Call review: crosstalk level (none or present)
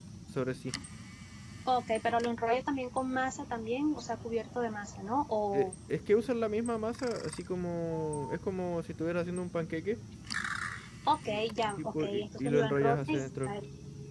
present